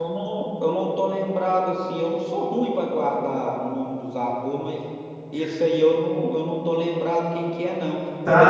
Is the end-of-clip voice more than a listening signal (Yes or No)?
Yes